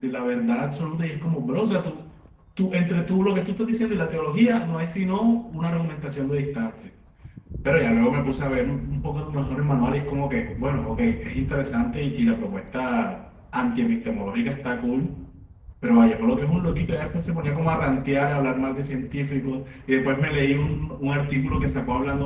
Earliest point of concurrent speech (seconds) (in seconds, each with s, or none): none